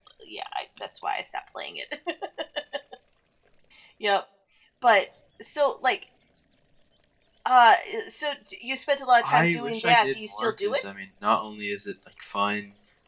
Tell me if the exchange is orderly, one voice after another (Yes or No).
No